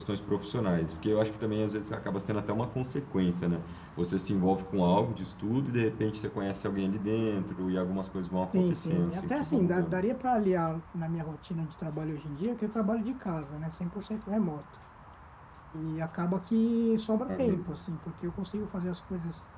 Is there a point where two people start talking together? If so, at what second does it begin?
8.5 s

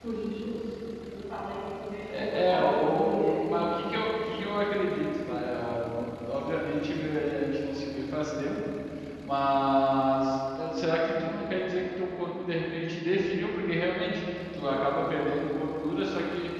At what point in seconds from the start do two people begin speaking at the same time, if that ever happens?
2.1 s

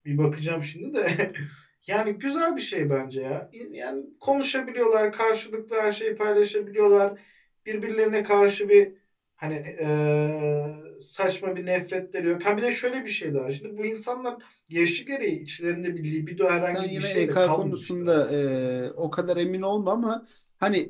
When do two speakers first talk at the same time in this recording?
16.7 s

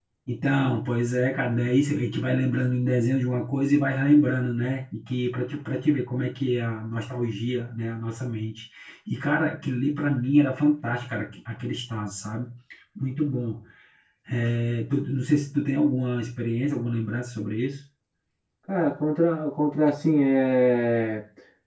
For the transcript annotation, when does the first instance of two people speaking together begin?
none

